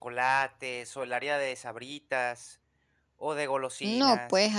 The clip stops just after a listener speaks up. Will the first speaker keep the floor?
No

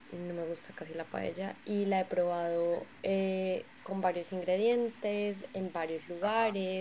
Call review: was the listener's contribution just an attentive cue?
Yes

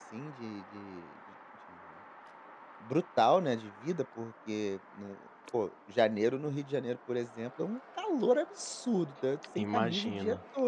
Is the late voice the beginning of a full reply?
No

